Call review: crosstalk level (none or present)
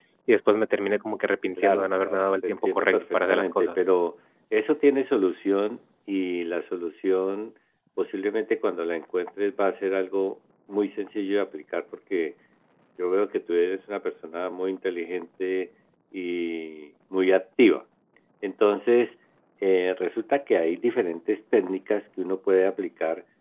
present